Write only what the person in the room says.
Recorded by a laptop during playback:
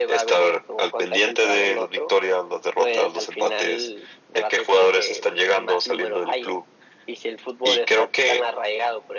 none

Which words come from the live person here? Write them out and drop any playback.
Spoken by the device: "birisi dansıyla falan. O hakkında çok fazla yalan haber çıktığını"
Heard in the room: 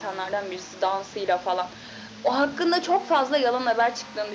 none

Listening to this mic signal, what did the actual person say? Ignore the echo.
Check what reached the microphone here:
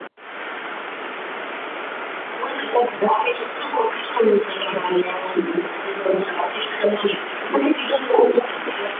none

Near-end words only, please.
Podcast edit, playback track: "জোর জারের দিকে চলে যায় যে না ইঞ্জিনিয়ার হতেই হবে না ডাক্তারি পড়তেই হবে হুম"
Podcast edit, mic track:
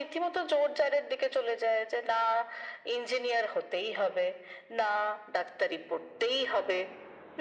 none

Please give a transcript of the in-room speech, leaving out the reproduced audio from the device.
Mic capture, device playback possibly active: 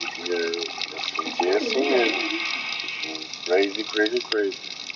A sério, ainda é longe?

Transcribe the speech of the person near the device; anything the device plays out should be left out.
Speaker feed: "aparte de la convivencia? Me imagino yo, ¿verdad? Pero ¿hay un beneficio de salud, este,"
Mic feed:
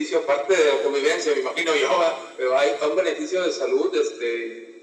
none

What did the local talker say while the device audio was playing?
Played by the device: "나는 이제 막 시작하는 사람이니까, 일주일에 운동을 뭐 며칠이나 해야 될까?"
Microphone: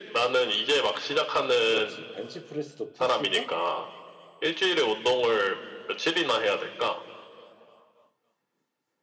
그렇지. 벤치프레스도 푸시고

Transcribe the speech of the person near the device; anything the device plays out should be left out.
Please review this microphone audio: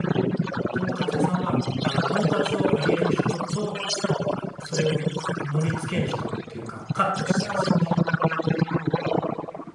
とんかつ屋さんは、あの、とんかつを揚げる人と、それを盛り付ける人っていうか、カットしたりする人。

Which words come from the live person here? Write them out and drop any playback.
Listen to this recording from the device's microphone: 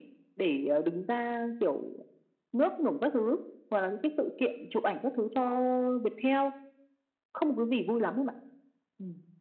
none

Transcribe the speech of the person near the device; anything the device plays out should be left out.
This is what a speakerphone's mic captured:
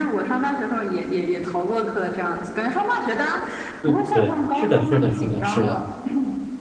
对对，是的，是的，是的，是的。

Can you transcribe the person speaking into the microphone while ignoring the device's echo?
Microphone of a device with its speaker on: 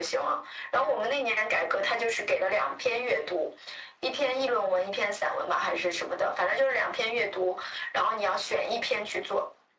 none

